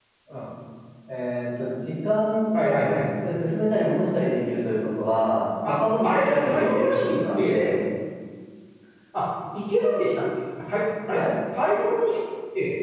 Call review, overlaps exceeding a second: present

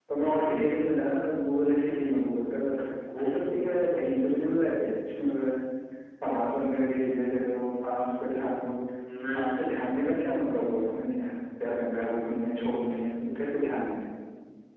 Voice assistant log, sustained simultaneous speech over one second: none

